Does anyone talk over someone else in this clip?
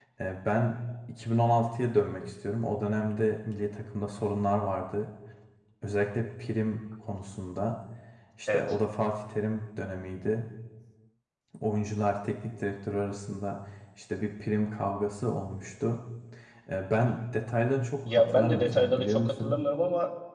Yes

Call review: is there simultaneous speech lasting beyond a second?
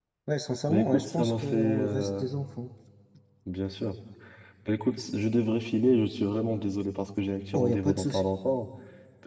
Yes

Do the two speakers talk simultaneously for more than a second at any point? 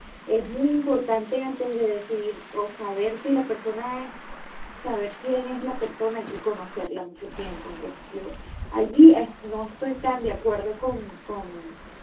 No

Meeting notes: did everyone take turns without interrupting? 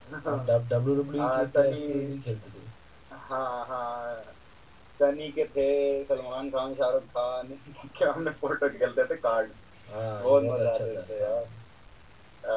No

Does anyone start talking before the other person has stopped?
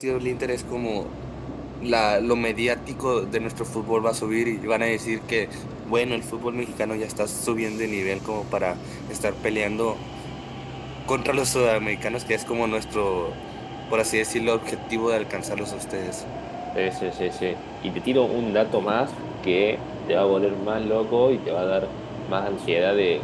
No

